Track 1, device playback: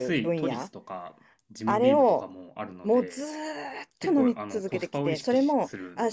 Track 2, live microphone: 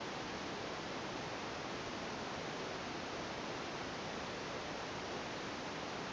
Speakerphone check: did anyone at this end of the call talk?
No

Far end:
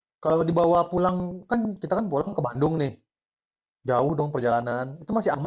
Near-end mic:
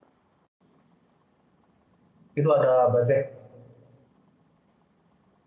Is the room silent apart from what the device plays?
No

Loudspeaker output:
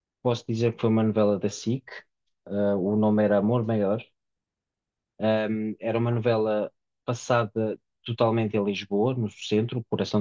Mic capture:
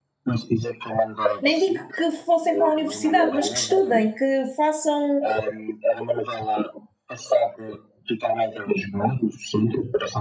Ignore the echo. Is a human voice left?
Yes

